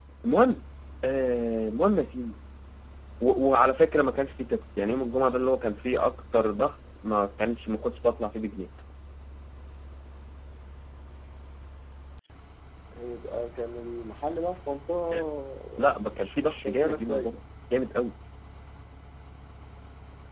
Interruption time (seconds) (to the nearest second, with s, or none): 16 s